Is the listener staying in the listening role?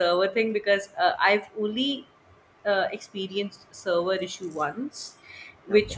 Yes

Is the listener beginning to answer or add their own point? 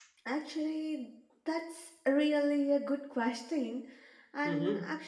No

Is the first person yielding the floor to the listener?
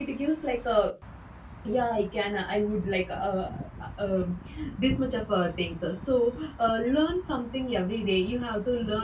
No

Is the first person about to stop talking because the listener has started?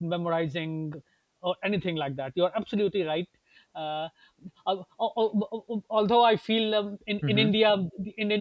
No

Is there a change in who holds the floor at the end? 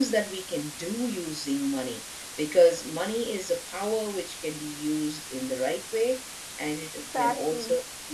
No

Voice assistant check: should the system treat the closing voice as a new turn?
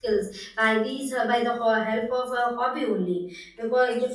No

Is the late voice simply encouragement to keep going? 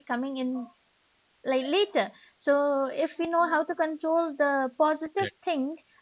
Yes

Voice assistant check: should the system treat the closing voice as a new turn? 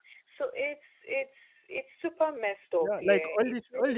Yes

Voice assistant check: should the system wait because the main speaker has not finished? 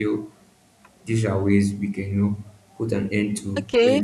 No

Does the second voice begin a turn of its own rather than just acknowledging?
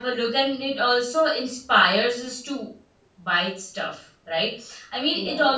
No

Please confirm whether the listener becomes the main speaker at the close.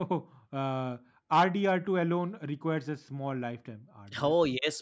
Yes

